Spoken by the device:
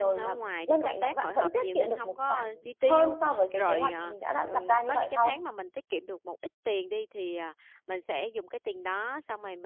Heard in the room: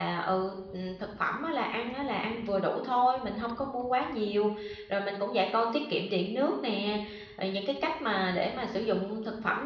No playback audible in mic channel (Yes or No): Yes